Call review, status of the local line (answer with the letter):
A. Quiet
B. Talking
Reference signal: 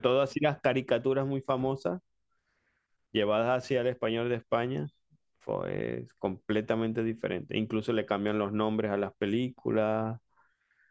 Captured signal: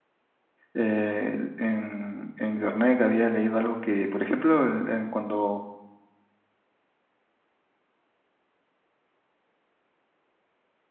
B